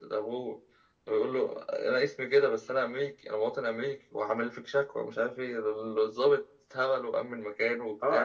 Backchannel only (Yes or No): No